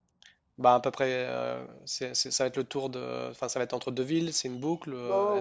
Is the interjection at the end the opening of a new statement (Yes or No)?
Yes